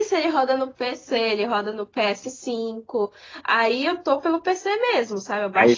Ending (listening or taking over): taking over